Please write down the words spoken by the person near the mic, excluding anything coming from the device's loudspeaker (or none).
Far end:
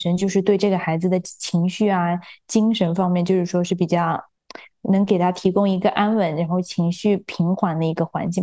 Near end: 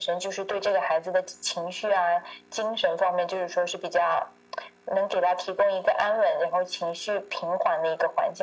none